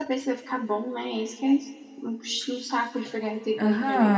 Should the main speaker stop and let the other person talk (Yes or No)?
Yes